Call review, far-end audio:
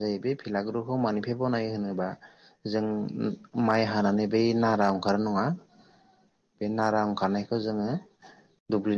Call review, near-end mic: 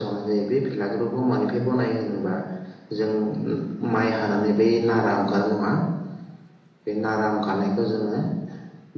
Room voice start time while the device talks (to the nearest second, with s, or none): none